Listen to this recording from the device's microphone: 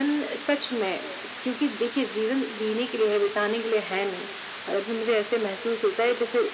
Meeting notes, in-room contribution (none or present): none